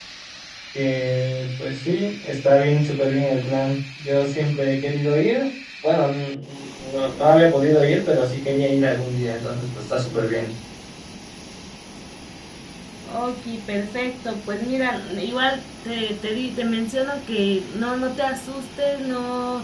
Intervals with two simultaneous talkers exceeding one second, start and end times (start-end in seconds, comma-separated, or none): none